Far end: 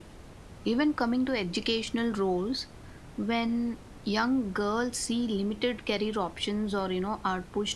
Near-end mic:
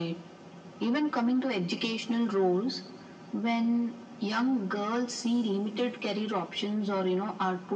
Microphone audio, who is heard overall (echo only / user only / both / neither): echo only